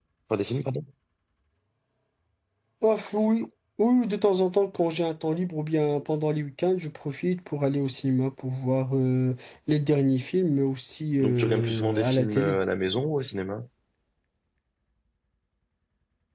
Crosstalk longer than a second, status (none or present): present